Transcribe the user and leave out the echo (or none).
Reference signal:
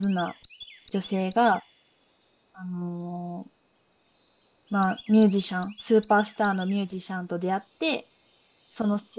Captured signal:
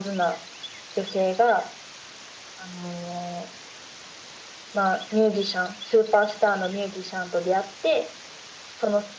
none